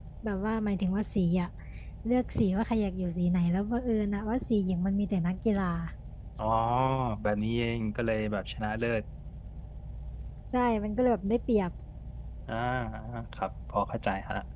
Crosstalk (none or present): none